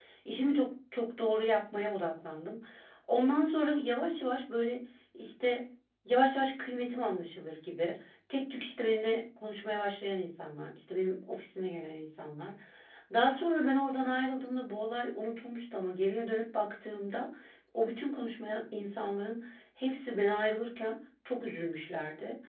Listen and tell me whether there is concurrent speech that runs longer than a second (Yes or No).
No